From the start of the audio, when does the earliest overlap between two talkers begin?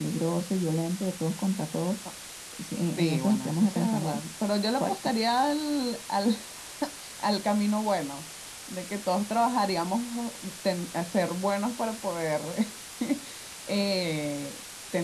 3.0 s

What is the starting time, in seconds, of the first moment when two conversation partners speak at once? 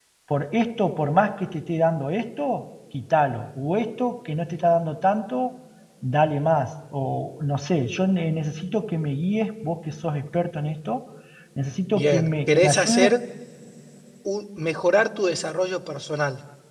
11.9 s

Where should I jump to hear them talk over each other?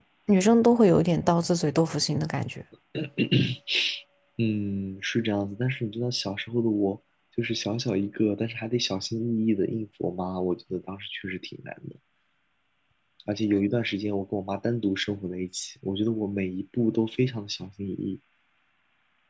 none

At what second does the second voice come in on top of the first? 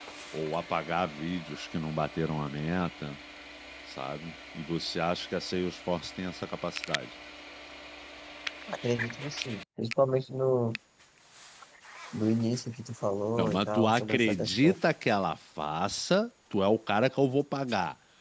13.4 s

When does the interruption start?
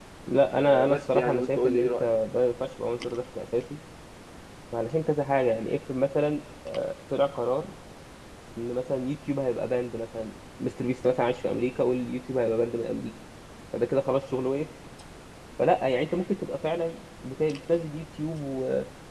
0.6 s

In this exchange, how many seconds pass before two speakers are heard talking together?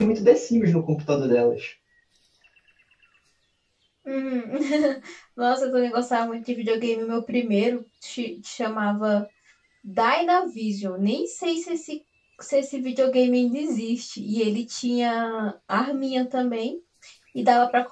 none

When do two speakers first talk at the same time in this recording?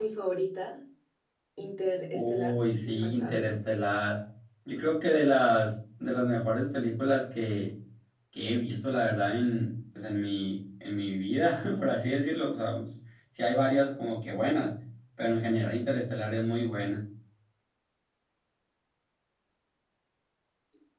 2.1 s

